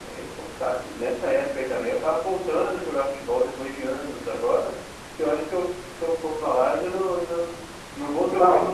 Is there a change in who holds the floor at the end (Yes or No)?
No